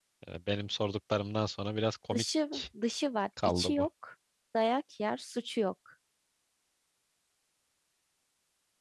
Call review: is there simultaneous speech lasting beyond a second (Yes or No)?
No